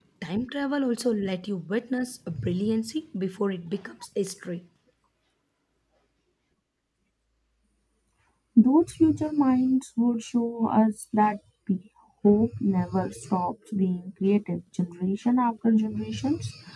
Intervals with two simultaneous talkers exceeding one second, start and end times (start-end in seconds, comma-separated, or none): none